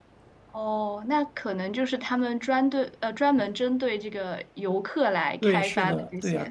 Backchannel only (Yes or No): No